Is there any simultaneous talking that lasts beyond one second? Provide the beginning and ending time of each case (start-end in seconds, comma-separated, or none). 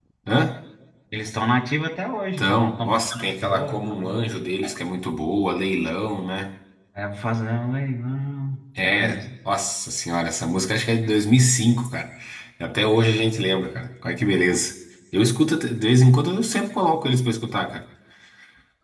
2.4-4.1